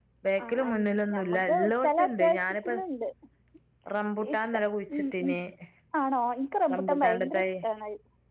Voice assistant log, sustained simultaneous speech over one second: present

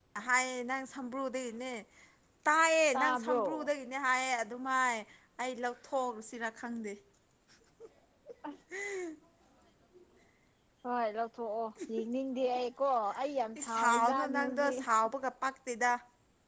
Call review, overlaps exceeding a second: present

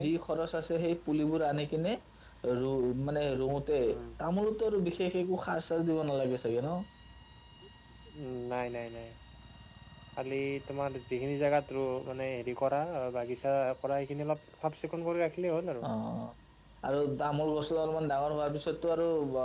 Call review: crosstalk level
none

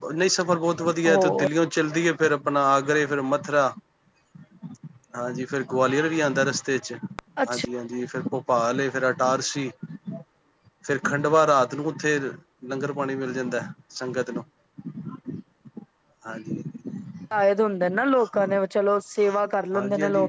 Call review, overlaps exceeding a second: none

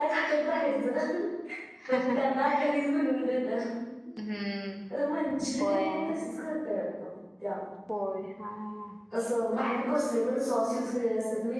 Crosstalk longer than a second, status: none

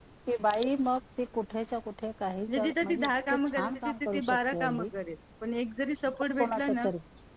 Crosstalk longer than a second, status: present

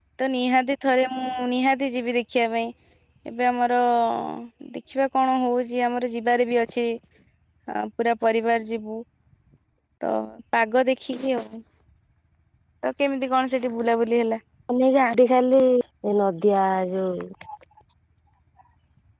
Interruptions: none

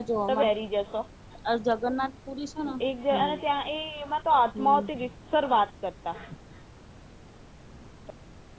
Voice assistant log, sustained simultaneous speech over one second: none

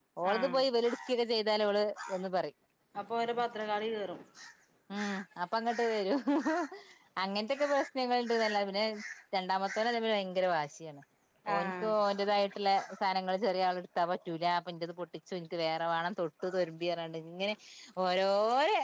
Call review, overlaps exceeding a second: none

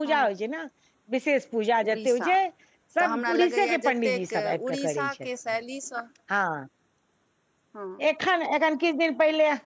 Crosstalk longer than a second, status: present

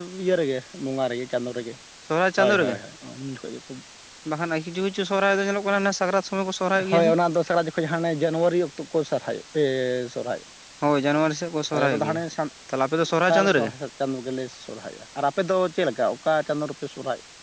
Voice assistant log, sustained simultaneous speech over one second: none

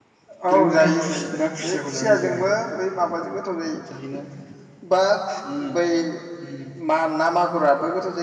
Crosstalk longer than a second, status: present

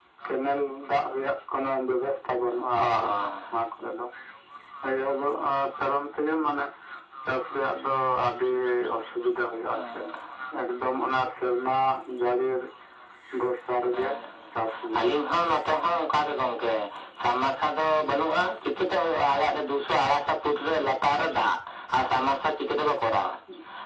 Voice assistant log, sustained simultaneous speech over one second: none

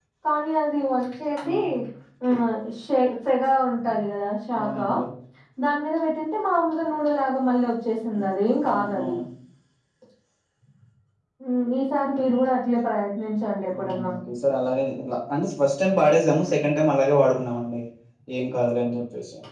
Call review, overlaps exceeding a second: none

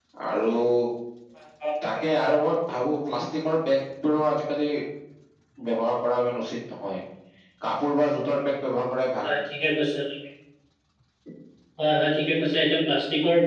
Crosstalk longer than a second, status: none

